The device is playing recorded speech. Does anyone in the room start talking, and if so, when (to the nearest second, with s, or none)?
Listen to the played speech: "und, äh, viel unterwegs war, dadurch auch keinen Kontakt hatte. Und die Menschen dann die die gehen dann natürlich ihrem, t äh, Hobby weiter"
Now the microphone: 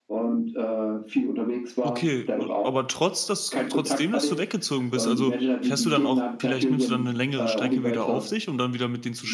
2 s